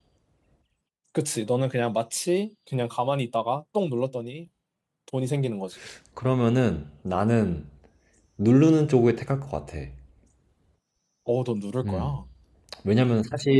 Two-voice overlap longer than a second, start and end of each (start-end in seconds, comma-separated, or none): none